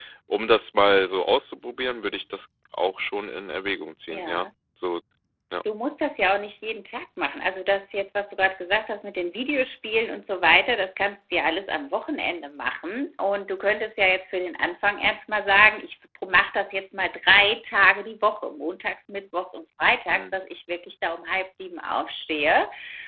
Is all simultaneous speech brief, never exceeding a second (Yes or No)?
Yes